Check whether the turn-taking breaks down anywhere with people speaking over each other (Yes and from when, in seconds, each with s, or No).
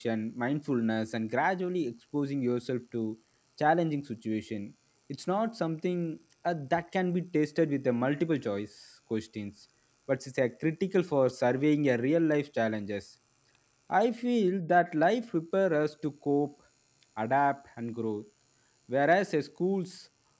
No